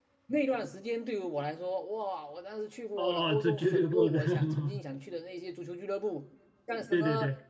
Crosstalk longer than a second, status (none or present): present